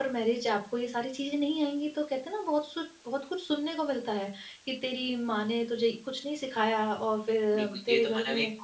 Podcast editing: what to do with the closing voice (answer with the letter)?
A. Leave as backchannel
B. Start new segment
B